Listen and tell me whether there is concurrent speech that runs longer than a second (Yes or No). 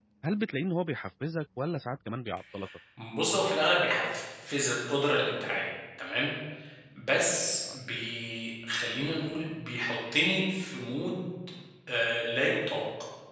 No